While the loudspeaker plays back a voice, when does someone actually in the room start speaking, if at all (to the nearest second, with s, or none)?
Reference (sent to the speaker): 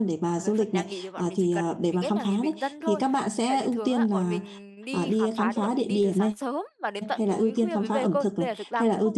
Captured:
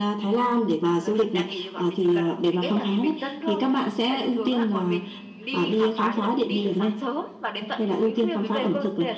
none